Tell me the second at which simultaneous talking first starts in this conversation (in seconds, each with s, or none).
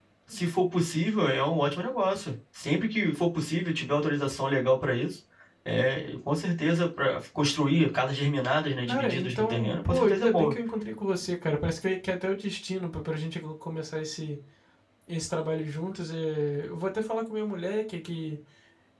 8.9 s